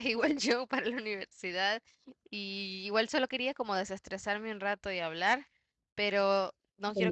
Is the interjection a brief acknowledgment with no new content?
Yes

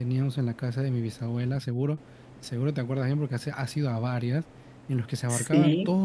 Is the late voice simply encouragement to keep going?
Yes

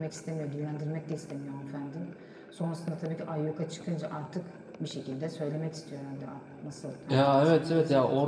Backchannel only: No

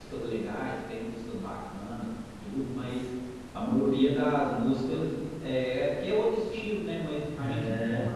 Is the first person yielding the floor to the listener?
No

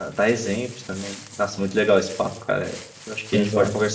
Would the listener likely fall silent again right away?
Yes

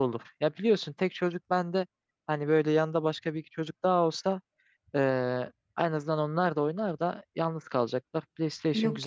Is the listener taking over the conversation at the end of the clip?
Yes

